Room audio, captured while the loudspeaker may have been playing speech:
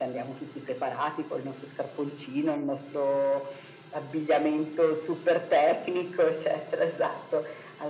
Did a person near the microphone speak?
No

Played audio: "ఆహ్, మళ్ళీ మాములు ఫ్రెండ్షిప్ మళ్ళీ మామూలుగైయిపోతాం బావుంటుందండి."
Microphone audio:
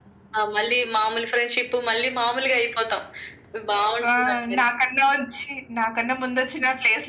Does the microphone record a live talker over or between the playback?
Yes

